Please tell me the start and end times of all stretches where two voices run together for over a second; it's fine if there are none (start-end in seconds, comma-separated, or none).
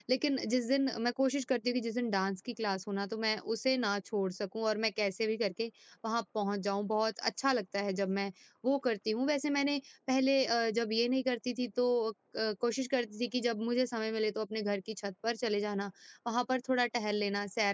none